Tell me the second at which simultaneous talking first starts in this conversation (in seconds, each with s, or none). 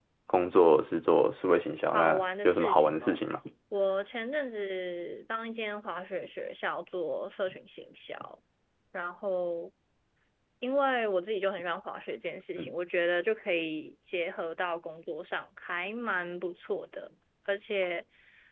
1.9 s